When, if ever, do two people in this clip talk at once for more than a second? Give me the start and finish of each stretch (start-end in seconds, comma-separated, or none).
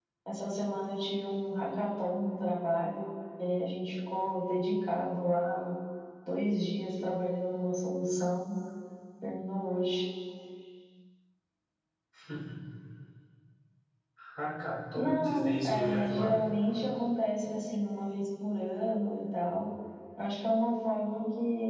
14.9-16.4